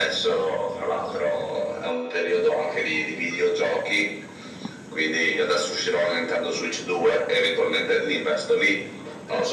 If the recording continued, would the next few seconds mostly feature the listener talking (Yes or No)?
Yes